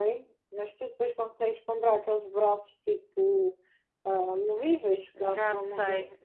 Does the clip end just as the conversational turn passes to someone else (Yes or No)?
Yes